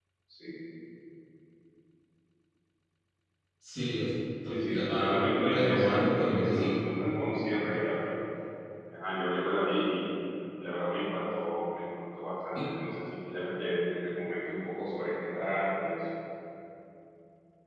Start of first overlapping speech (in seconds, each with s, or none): 4.7 s